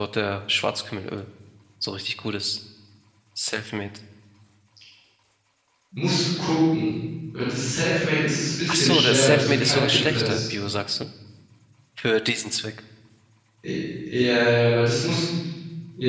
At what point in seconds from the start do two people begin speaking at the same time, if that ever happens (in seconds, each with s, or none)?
8.7 s